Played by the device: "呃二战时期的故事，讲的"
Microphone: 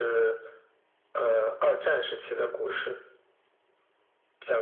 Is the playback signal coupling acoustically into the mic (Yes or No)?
Yes